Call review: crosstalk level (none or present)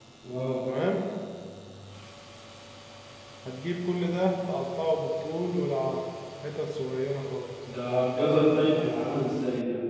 none